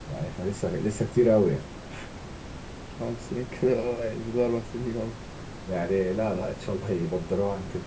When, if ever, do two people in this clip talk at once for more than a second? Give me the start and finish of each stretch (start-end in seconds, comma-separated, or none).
none